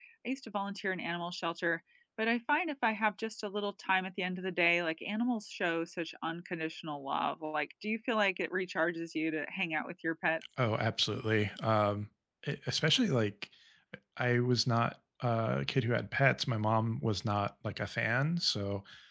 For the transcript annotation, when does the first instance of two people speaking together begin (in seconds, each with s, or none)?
none